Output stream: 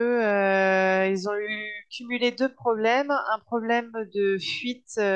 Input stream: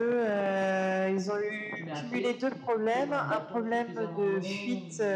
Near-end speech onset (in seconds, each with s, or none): 1.7 s